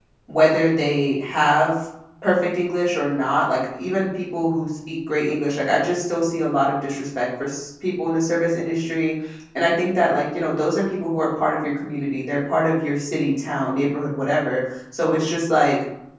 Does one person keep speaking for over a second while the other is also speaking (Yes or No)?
No